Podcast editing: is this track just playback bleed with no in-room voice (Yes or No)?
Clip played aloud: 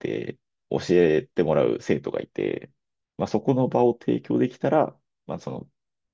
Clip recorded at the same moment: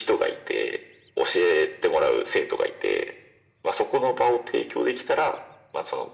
Yes